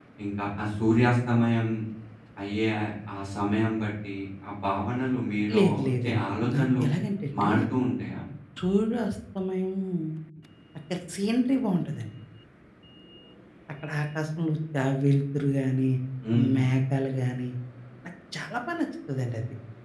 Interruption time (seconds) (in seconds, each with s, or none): 5.6 s